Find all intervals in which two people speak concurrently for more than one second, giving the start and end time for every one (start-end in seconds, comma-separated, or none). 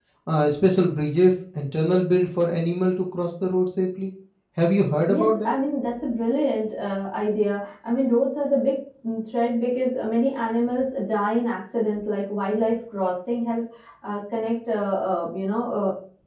none